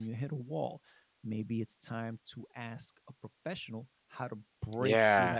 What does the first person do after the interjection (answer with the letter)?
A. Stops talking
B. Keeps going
A